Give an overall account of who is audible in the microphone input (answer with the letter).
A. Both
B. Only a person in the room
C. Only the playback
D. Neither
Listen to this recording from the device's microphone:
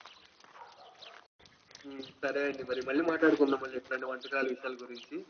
C